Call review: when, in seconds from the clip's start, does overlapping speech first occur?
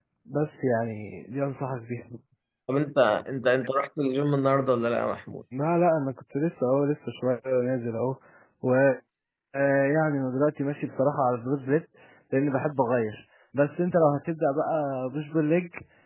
none

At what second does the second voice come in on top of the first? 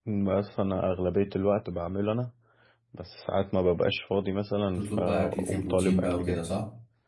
4.8 s

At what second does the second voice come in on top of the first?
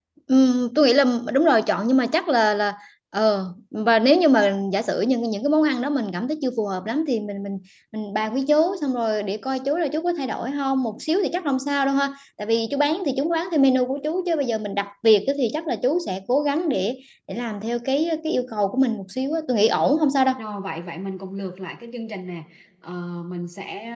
none

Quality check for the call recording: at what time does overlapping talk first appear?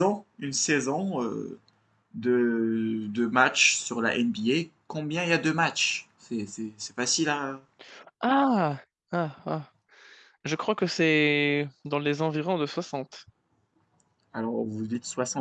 none

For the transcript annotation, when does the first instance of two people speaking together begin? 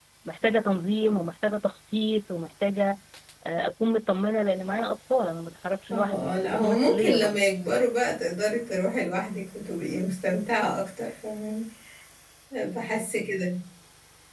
5.9 s

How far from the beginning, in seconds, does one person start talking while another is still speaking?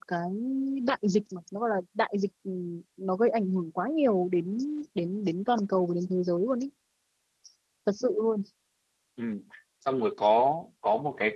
none

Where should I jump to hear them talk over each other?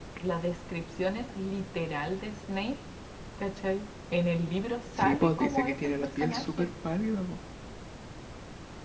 5.0 s

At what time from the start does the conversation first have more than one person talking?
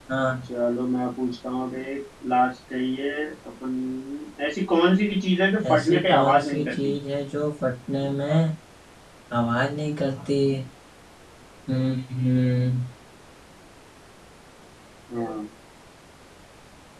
5.7 s

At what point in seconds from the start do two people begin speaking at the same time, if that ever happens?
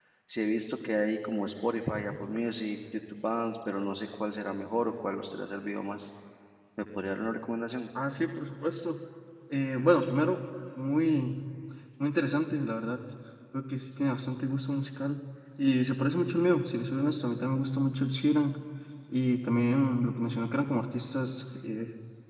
none

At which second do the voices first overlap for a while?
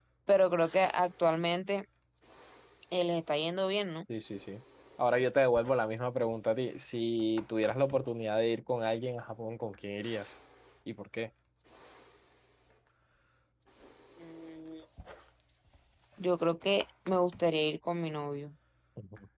none

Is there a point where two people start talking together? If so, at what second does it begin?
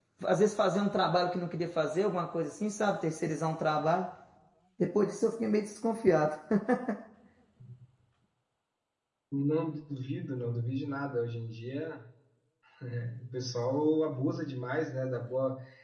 none

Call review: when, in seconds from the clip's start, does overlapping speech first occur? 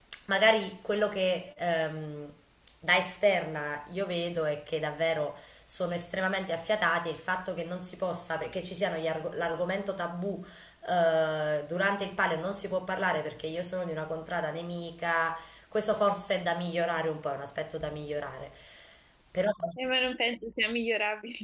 none

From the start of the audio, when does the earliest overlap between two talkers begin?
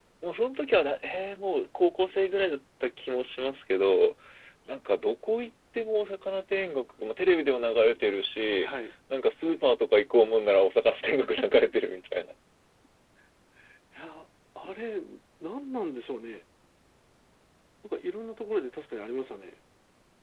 none

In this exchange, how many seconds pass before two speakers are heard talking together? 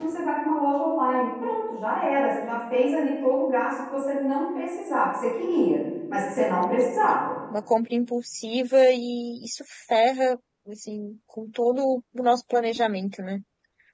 none

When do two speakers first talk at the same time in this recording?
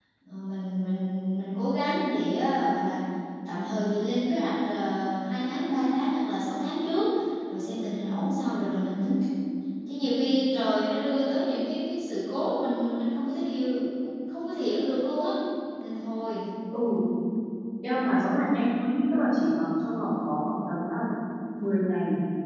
none

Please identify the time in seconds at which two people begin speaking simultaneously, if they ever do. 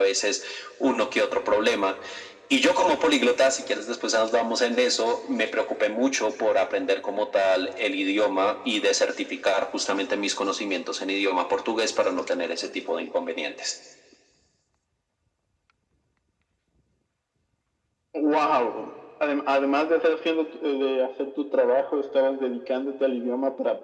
none

